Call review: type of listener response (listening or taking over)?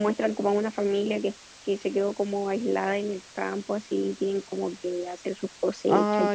taking over